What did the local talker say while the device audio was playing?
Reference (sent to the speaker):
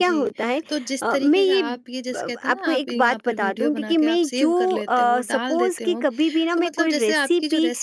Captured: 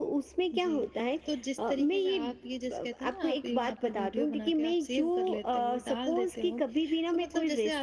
none

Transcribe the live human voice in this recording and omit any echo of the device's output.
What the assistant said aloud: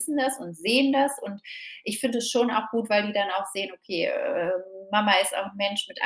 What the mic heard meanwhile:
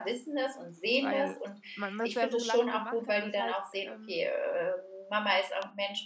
weil man das ja so lange gemacht hat und das halt ähm,

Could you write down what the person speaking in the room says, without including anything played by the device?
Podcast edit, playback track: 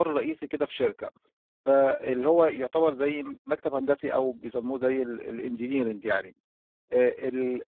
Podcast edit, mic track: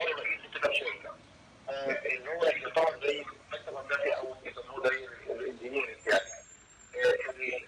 none

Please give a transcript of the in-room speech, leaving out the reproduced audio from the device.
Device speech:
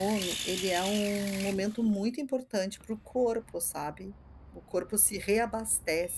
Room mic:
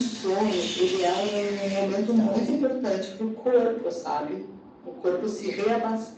te dar um exemplo,

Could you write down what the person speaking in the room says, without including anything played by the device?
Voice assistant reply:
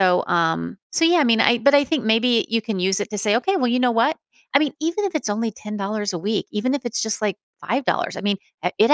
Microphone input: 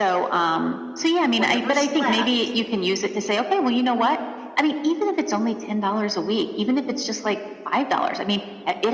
whatever's left

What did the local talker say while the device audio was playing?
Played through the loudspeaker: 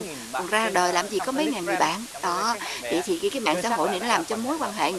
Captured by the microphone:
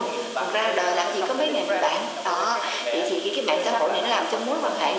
none

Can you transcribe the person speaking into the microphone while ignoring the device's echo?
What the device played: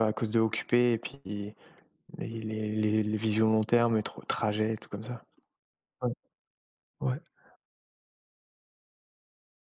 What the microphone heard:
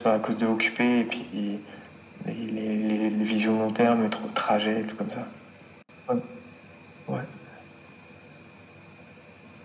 none

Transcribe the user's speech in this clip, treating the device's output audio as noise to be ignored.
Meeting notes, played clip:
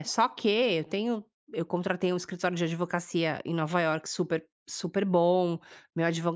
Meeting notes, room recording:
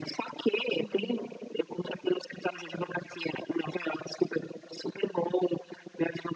Uhum.

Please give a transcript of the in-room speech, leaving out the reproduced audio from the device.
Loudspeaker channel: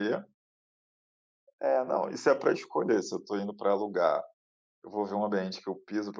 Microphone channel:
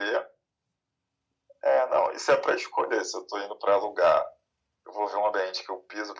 none

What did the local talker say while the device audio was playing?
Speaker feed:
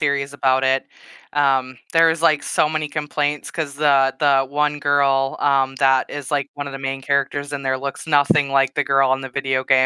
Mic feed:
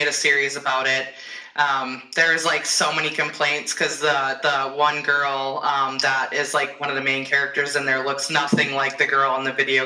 none

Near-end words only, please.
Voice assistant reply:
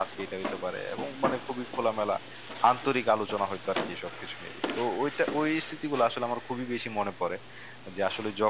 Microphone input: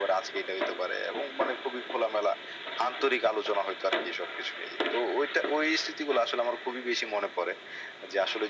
none

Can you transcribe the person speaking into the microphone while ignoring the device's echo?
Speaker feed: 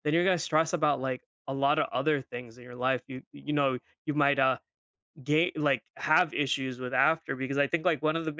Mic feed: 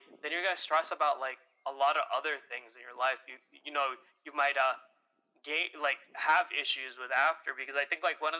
none

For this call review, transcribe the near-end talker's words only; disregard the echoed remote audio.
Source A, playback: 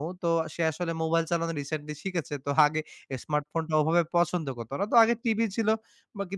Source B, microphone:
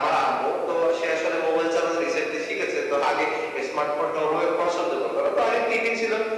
none

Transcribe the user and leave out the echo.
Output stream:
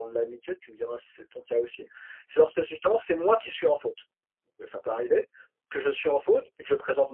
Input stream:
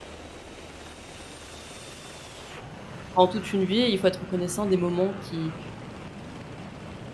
pendant toute une vie. Il faut être reconnaissant des moments qui

